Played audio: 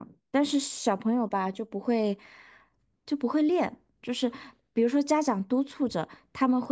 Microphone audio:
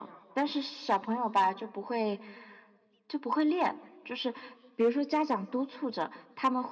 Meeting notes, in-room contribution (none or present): none